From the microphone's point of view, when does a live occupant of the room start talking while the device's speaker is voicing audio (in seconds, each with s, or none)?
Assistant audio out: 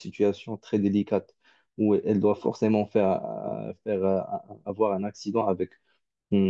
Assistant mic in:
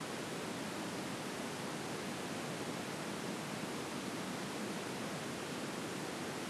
none